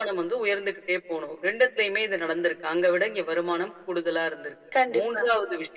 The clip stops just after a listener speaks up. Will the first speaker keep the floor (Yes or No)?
Yes